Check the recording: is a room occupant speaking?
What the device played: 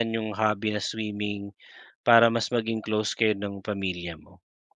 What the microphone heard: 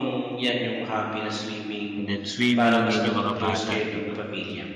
Yes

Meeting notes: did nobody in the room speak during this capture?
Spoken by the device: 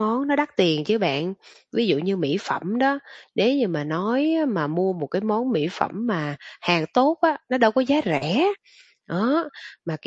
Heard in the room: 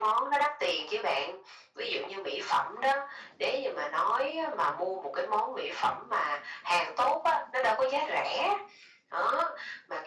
Yes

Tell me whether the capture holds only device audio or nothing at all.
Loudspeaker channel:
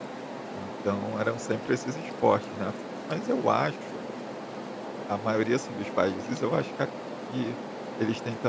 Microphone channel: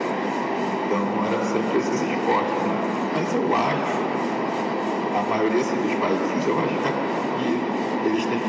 Yes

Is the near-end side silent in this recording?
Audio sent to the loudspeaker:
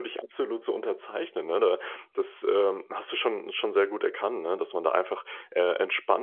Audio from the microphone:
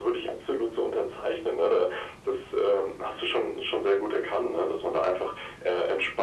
Yes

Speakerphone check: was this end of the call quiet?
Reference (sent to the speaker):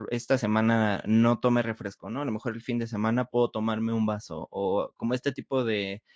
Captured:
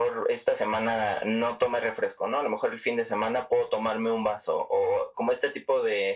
Yes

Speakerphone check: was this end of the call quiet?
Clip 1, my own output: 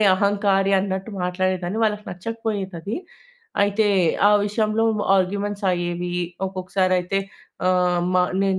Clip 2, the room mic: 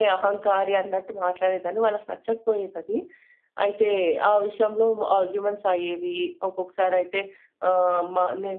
Yes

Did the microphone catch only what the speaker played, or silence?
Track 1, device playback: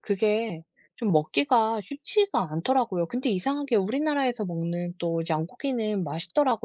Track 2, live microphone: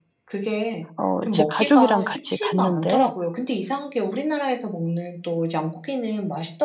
No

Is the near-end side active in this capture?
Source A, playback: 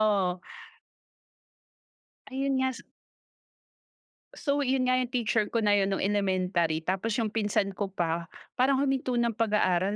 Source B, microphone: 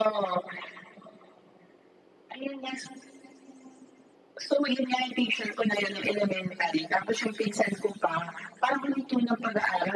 No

